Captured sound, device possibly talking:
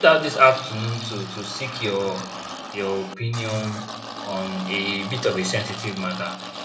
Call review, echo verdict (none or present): none